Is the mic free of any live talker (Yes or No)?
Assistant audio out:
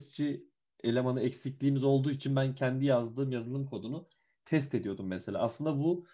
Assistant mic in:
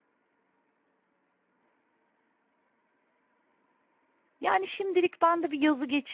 No